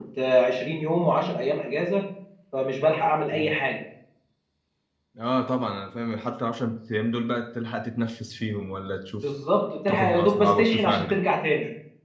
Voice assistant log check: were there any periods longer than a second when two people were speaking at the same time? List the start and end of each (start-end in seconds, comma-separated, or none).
9.9-11.2